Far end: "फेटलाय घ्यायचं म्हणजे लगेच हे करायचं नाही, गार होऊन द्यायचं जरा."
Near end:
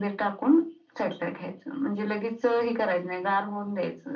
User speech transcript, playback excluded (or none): none